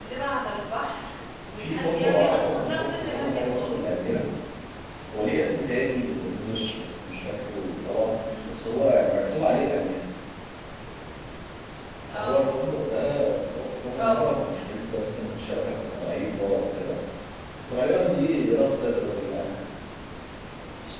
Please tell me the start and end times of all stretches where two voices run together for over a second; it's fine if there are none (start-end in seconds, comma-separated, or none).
1.6-3.9